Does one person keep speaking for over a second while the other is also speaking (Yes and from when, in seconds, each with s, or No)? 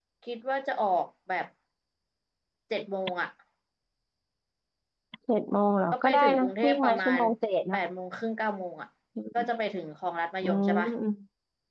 Yes, from 5.9 s